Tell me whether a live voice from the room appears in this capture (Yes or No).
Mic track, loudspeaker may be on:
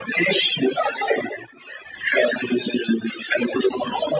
No